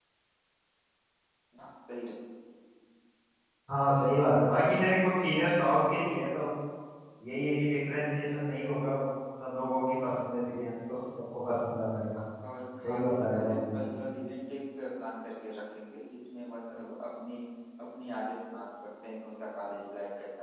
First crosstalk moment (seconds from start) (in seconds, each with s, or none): 12.8 s